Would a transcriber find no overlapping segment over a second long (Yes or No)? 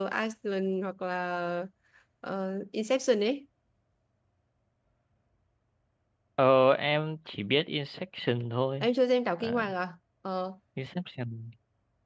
Yes